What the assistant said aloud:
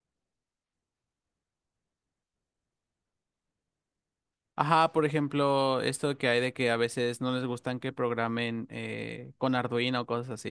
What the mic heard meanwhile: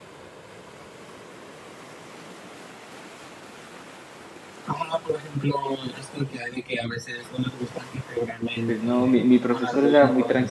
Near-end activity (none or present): present